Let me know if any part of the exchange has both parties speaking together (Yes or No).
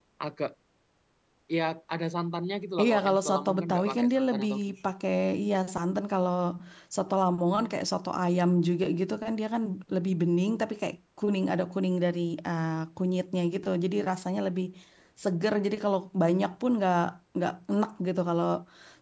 Yes